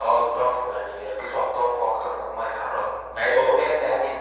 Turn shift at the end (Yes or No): No